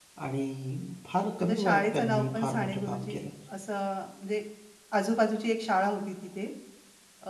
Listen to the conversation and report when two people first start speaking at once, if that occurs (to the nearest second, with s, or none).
1 s